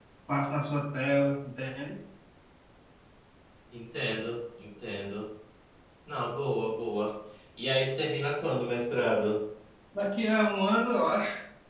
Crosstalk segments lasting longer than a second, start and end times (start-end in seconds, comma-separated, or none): none